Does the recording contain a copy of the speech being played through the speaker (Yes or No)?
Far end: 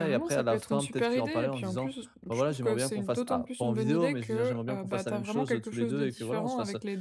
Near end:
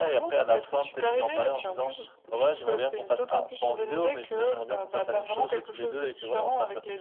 Yes